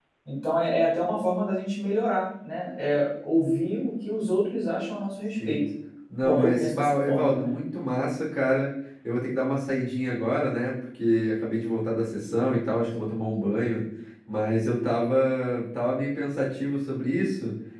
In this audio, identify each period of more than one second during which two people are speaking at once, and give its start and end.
6.2-7.5

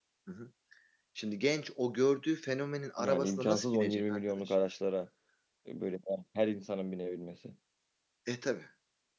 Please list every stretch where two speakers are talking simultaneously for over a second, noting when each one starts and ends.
3.0-4.5

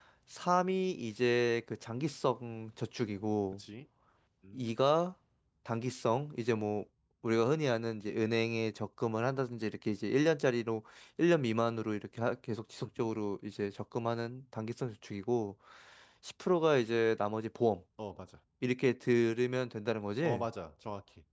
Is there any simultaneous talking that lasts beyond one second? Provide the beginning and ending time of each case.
none

